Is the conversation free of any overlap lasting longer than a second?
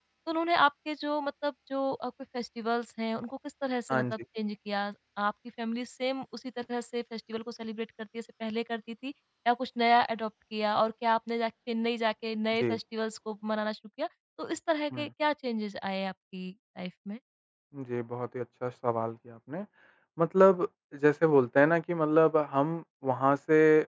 Yes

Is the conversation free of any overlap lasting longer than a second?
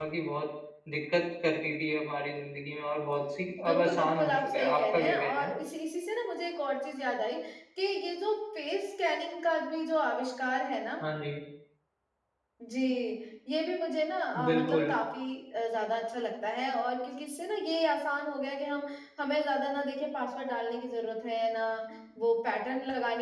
No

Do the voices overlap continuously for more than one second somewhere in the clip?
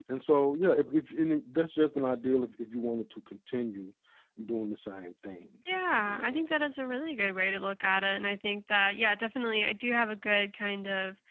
No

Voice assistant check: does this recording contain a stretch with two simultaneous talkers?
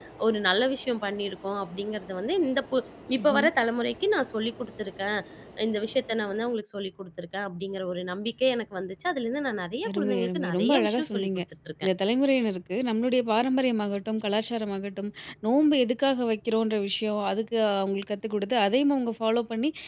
Yes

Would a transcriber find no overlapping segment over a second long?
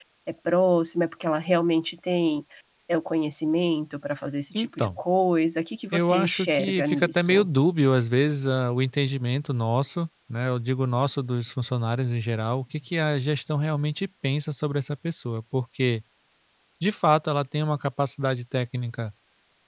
No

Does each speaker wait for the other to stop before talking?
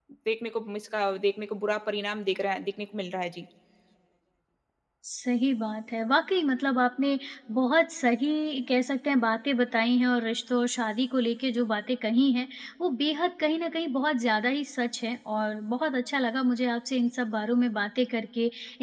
Yes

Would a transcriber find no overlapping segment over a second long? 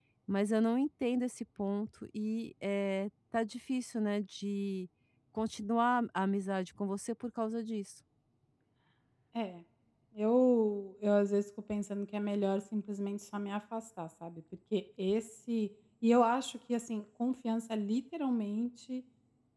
Yes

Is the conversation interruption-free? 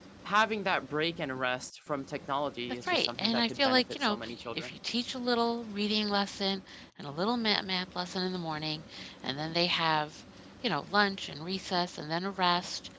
No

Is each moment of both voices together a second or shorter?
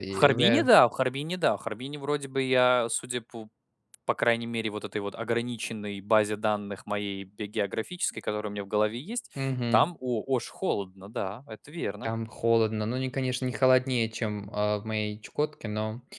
Yes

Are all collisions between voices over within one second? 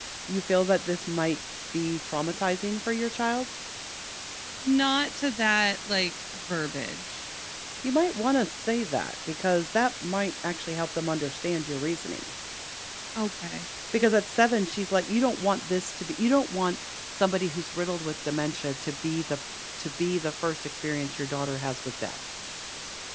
Yes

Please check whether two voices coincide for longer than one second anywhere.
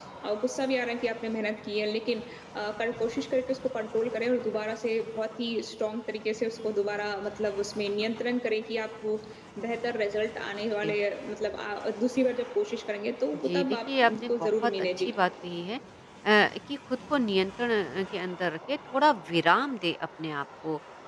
Yes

